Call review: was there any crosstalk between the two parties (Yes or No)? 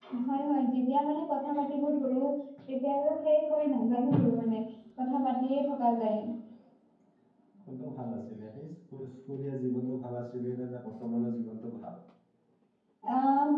No